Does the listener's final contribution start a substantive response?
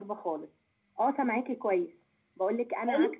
No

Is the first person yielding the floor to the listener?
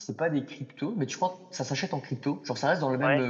No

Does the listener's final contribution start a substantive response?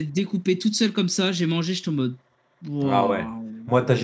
Yes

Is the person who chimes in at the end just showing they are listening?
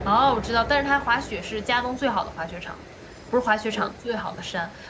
Yes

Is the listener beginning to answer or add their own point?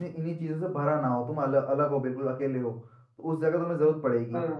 No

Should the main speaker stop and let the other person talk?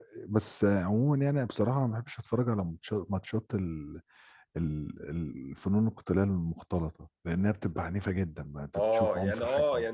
Yes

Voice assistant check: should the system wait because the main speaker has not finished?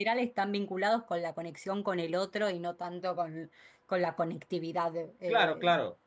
No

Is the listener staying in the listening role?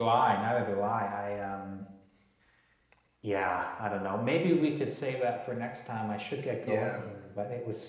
Yes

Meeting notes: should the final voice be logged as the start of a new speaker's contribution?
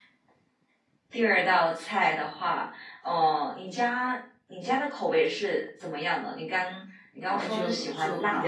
Yes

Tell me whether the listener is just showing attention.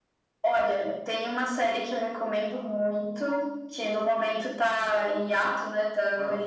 Yes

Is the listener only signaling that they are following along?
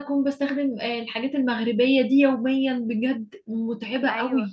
No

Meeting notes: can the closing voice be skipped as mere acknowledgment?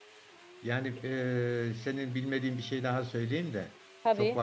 Yes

